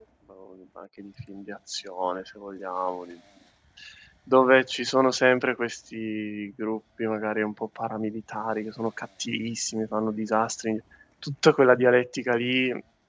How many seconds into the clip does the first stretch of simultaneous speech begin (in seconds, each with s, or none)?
none